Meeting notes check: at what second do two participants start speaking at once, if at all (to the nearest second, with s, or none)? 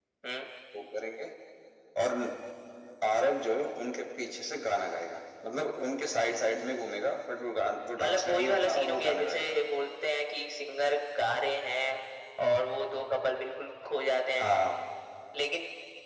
8 s